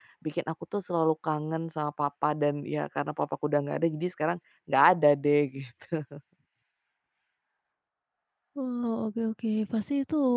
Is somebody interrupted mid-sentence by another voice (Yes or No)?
No